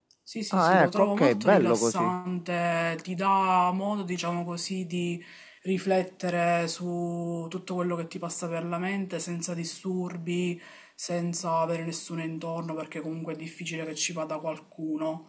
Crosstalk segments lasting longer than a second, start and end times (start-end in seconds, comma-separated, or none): 0.5-2.1